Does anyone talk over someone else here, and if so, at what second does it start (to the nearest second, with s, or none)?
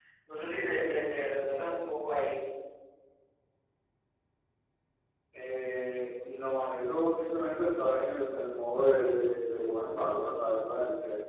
none